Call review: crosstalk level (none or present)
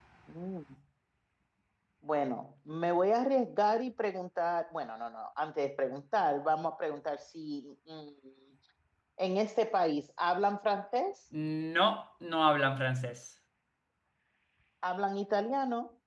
none